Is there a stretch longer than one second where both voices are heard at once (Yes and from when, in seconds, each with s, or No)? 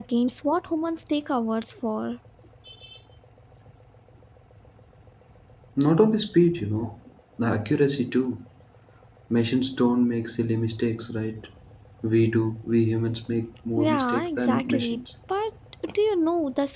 Yes, from 13.8 s